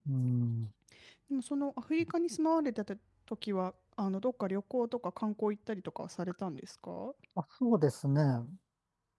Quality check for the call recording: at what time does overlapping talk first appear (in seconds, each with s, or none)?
none